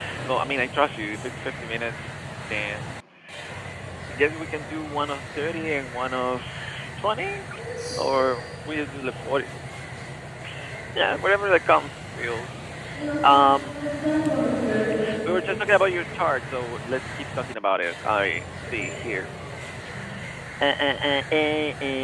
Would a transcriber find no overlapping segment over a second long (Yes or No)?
Yes